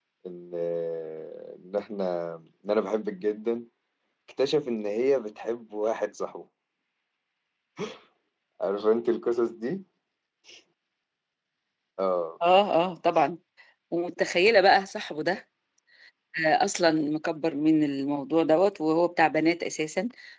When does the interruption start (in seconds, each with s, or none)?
none